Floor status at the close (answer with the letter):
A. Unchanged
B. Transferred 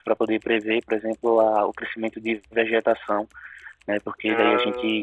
A